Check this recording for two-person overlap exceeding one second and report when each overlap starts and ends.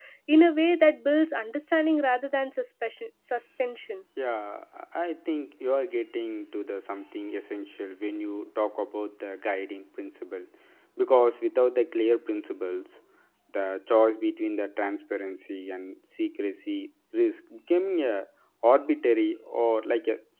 none

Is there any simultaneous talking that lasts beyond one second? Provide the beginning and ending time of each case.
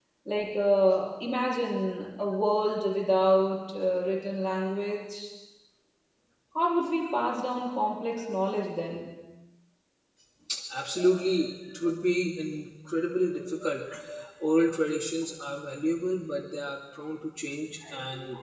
none

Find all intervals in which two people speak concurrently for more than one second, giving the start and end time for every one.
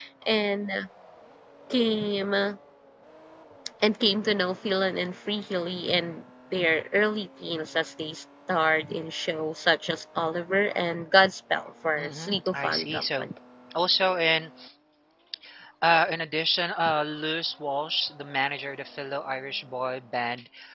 12.0-13.3

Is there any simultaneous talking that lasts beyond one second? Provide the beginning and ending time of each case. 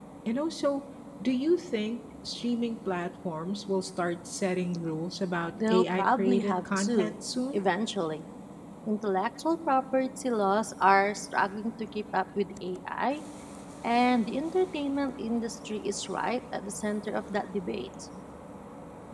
5.7-7.1

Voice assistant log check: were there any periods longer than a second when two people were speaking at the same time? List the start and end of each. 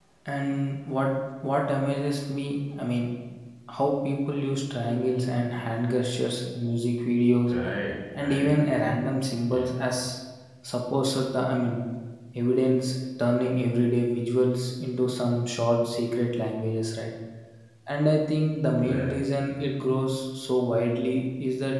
none

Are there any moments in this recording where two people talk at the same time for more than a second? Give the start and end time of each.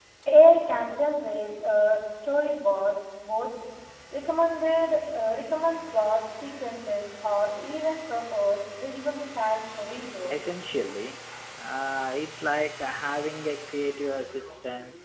none

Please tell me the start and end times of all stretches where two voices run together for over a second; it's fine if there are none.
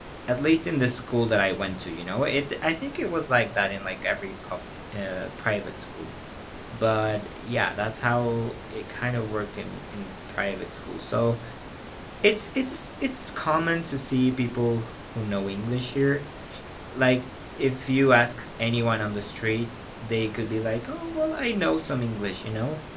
none

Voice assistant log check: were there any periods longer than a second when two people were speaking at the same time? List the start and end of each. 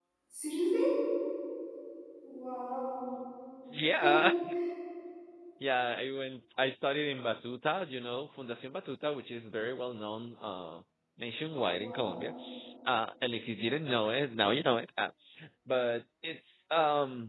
none

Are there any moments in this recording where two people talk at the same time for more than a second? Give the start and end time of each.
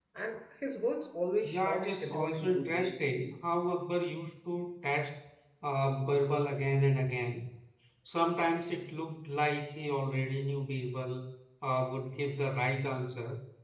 1.4-2.9

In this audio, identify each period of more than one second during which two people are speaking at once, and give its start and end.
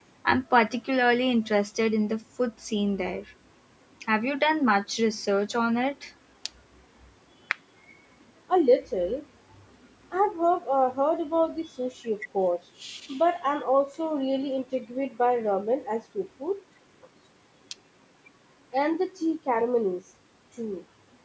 none

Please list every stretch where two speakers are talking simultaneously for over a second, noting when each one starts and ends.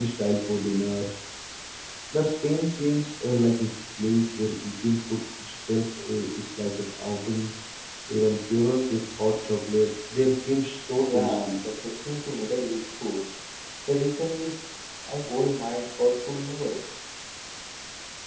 none

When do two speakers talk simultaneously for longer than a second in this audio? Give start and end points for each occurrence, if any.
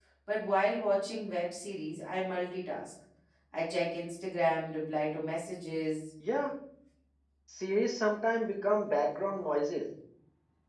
none

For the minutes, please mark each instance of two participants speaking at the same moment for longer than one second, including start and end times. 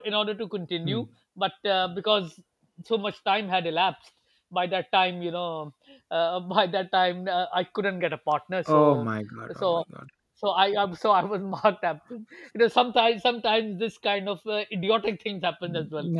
none

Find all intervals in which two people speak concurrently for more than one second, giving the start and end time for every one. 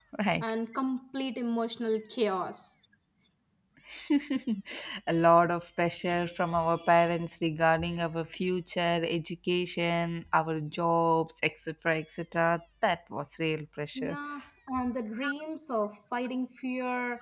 none

